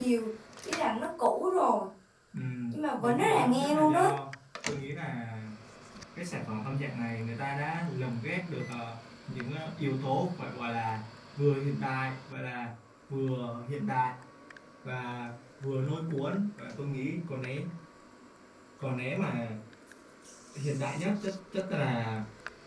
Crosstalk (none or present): present